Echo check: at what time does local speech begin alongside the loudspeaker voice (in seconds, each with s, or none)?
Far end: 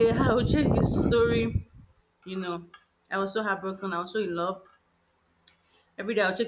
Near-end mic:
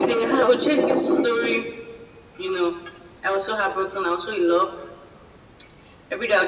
none